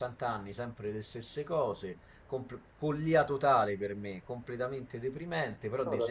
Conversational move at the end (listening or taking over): listening